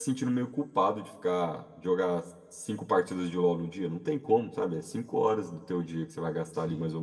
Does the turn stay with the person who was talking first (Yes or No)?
Yes